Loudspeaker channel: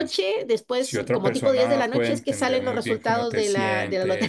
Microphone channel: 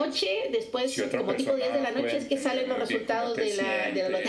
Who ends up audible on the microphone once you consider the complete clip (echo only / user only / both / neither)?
echo only